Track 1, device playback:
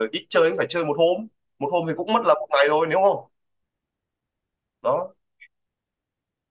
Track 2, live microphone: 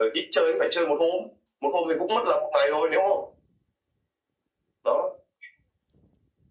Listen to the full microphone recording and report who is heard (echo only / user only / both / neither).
echo only